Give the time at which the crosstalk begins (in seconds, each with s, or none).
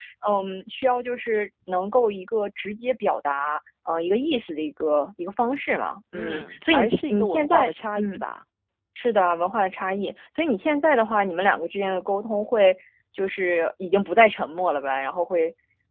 6.1 s